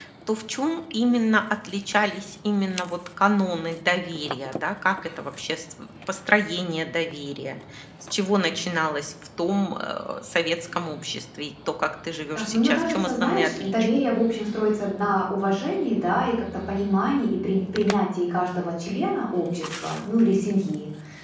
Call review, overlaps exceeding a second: present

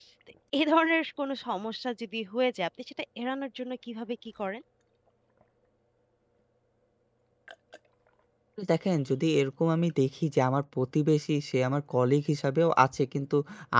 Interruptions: none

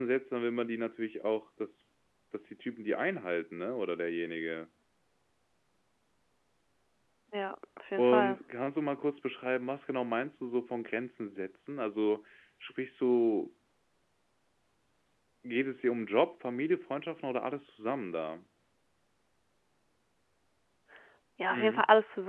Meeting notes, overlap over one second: none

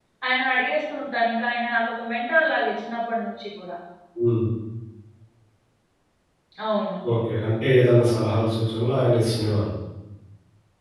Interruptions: none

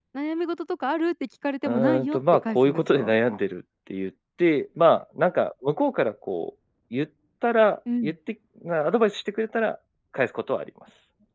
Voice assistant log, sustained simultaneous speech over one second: present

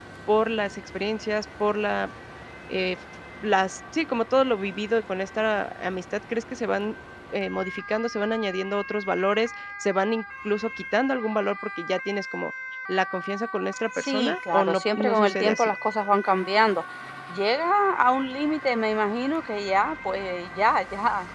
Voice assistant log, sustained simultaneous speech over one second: present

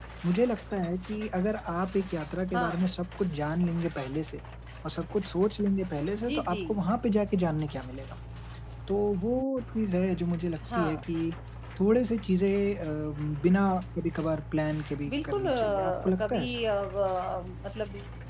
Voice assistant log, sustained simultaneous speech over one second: present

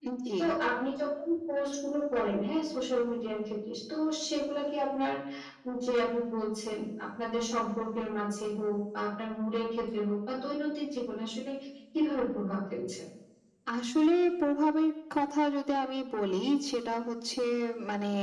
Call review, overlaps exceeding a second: none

